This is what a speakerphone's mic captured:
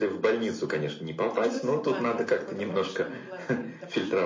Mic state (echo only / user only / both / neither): both